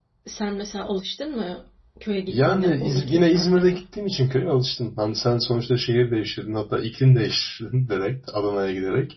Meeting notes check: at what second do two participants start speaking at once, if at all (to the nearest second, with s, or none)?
2 s